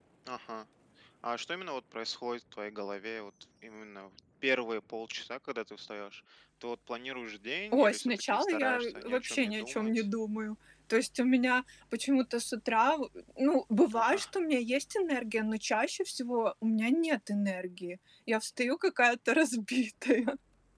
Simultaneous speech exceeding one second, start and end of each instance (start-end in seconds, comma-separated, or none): 7.7-10.1